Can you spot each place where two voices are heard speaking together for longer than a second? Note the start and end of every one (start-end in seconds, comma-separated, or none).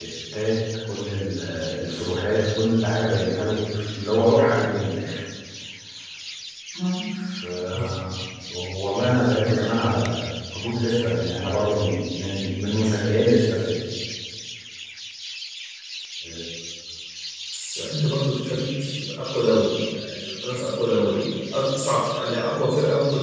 none